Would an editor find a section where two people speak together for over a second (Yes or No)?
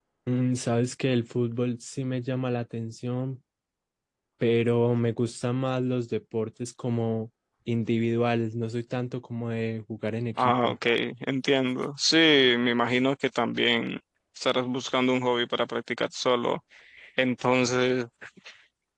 No